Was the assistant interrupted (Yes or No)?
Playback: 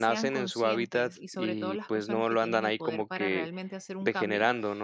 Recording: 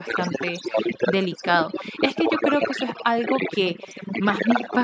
Yes